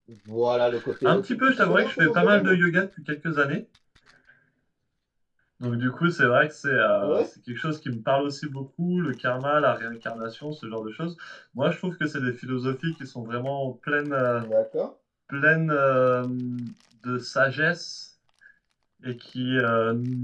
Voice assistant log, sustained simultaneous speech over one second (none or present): present